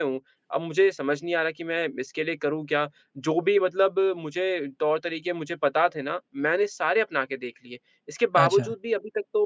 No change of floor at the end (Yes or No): Yes